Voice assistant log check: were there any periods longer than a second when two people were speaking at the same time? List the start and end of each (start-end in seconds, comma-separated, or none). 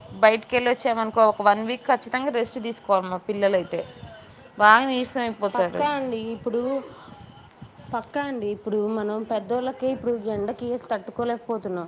none